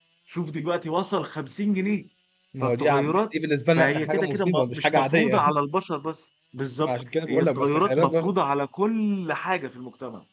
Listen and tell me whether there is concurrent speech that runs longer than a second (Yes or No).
Yes